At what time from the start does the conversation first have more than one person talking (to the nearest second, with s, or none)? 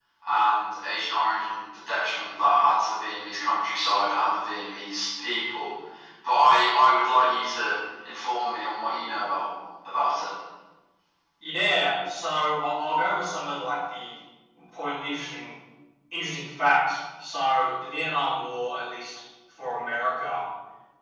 none